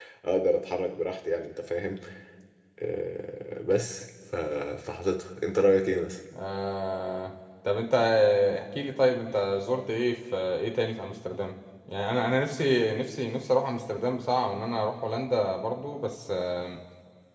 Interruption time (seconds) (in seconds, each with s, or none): none